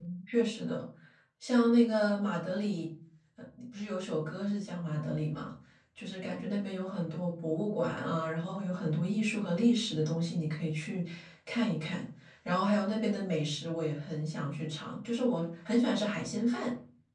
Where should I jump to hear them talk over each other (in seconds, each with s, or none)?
none